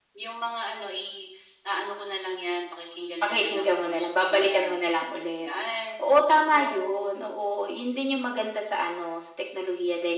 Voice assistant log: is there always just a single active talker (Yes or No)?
No